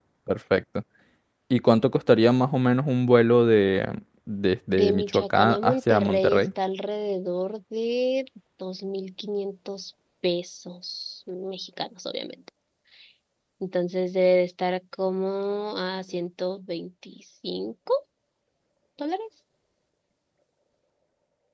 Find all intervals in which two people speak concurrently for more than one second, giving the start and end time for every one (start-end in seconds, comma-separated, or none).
4.7-6.4